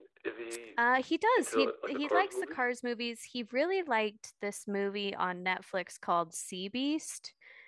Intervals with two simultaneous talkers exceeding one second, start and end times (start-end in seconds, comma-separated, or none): 1.4-2.6